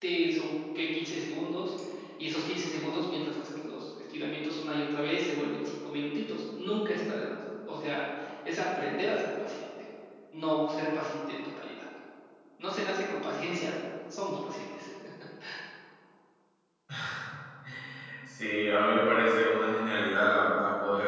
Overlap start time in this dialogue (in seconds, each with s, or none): none